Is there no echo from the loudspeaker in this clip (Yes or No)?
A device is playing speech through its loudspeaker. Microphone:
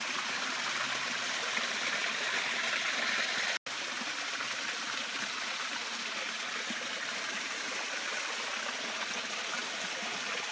Yes